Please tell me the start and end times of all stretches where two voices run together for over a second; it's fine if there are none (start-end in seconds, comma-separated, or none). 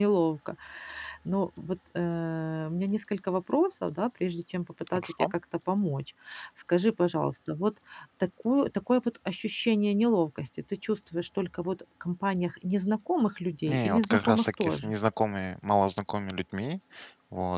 13.7-14.9